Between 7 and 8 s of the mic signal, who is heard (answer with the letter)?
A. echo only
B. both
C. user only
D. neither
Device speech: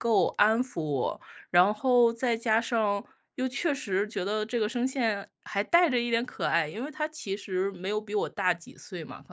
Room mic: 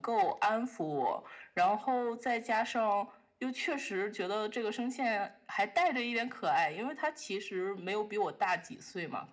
A